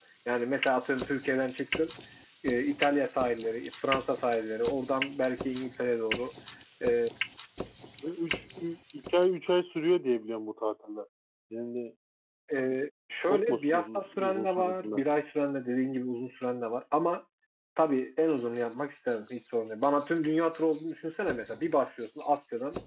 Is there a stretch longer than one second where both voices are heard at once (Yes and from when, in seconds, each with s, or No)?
Yes, from 13.3 s